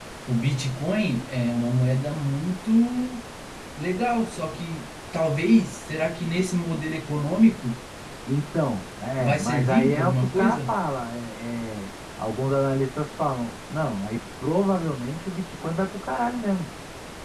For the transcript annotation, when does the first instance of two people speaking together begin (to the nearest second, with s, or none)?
9 s